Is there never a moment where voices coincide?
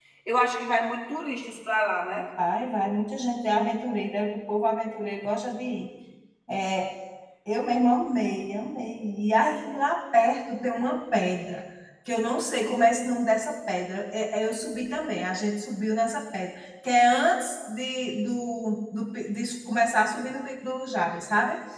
Yes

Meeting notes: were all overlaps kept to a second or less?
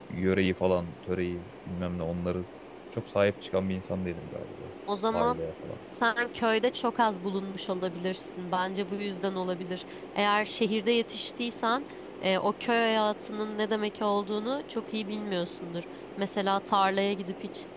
Yes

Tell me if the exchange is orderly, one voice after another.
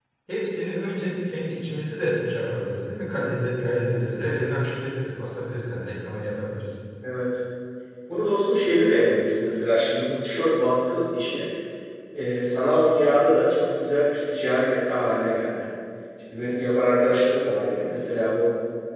Yes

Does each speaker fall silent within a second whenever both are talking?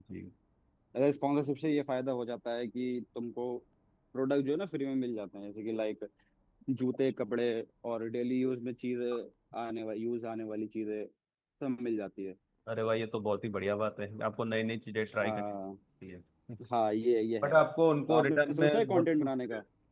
No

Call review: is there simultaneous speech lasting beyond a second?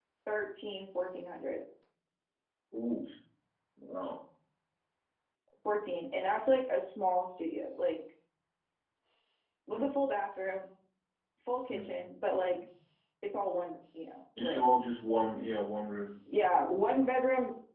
No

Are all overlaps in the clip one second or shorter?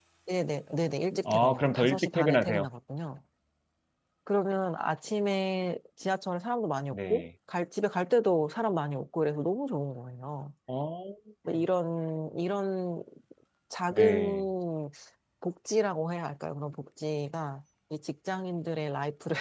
No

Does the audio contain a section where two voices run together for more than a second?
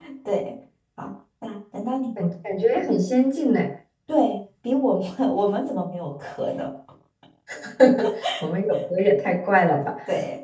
No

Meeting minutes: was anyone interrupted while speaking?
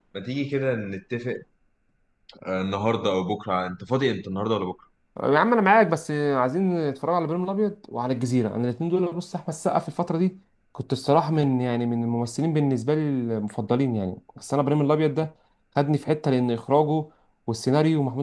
No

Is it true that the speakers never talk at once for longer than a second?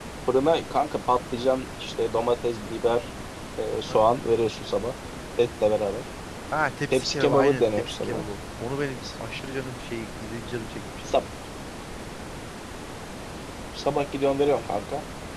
No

